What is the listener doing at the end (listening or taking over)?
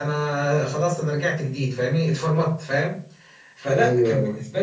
listening